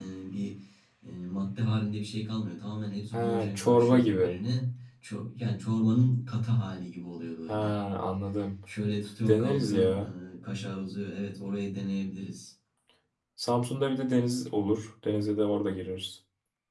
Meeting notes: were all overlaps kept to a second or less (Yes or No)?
No